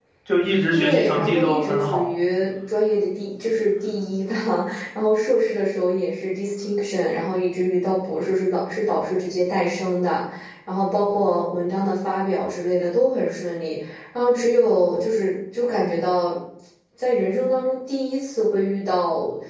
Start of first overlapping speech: 0.7 s

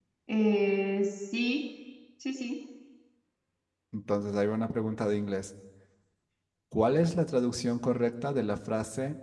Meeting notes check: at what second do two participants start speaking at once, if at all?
none

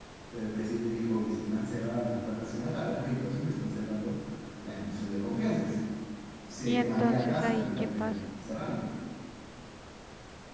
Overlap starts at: 6.6 s

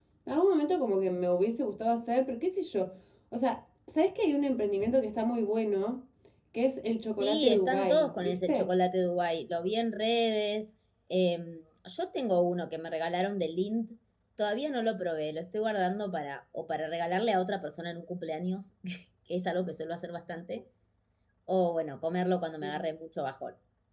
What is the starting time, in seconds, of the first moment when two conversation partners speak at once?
7.2 s

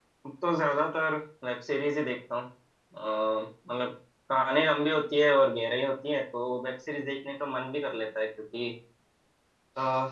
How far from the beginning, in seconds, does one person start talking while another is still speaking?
none

